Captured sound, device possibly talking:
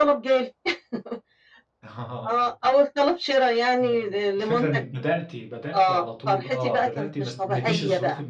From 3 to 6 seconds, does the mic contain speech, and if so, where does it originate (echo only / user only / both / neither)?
both